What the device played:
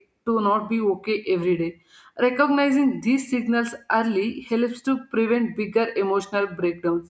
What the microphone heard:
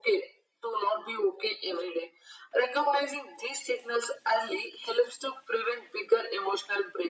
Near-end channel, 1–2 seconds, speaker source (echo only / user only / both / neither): echo only